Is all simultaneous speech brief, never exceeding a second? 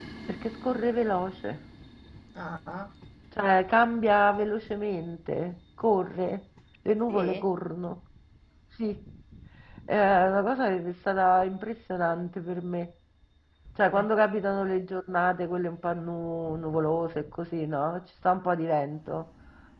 Yes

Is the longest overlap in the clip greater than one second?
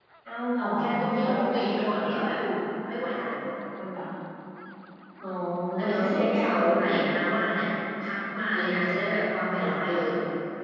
Yes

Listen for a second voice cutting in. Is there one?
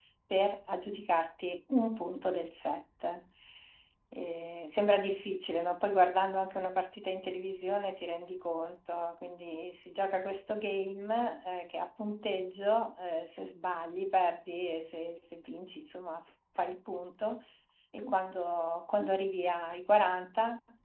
No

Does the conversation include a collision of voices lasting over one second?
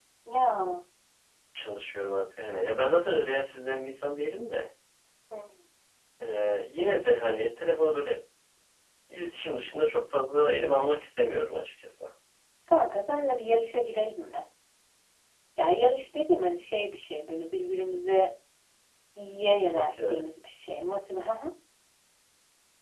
No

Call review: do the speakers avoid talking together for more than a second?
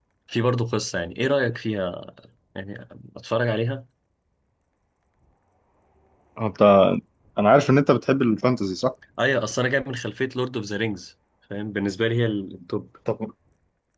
Yes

